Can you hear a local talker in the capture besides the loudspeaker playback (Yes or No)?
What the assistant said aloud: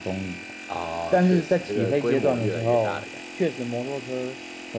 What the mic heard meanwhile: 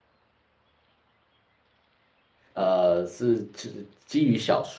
Yes